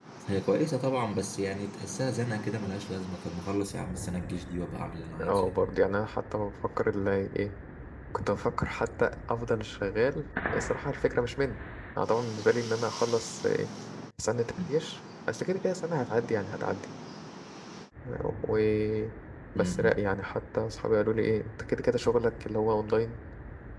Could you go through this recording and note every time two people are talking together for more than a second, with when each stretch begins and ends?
none

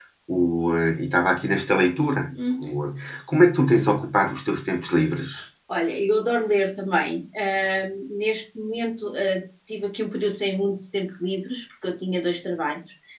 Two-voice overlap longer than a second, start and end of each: none

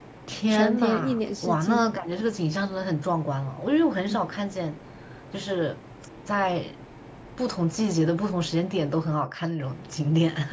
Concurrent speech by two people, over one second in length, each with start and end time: 0.5-1.9

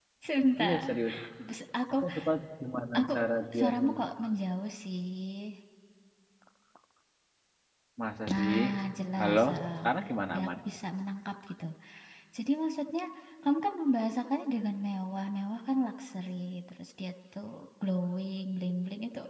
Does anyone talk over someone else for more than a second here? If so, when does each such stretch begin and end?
none

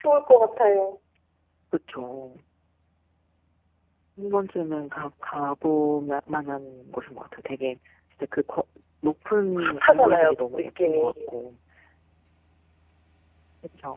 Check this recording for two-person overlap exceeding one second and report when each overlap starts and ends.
9.6-11.1

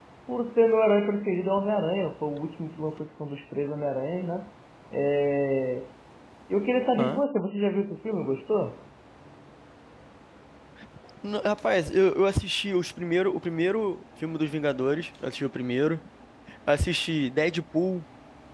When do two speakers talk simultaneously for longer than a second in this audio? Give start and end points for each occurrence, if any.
none

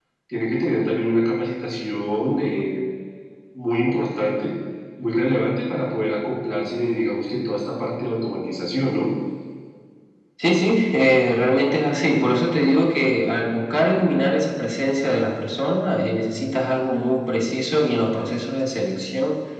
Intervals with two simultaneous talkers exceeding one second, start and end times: none

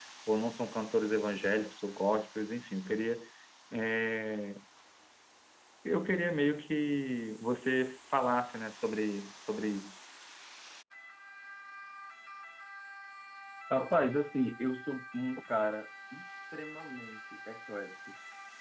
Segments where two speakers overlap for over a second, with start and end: none

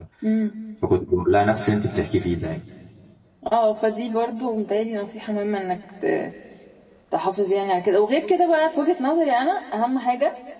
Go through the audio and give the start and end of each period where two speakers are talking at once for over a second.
none

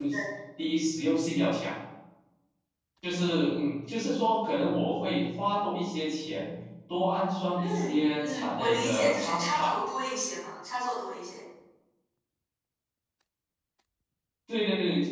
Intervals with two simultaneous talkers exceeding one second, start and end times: 7.6-9.7

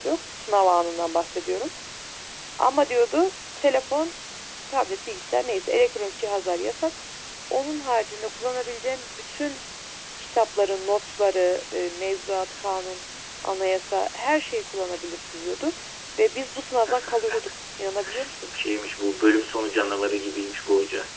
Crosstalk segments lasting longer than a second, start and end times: none

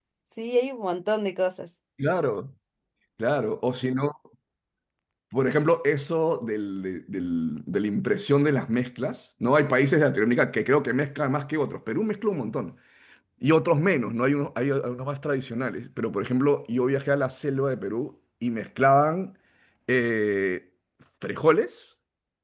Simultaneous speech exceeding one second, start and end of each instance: none

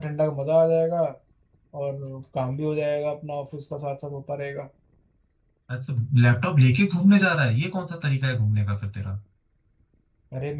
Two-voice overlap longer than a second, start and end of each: none

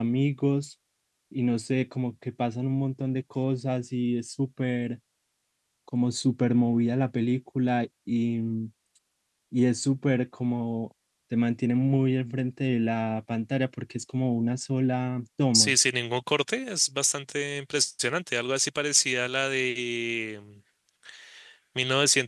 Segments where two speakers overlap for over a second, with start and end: none

